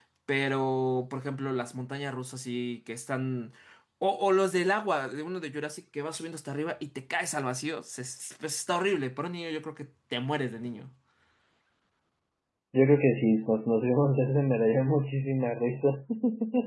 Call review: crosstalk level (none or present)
none